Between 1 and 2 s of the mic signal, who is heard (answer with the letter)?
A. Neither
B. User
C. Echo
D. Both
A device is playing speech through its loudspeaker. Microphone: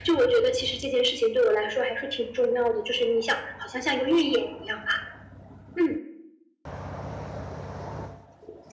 C